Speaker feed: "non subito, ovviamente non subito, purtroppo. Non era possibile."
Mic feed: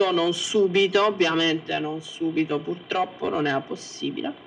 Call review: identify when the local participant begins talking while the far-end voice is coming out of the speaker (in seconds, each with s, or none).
none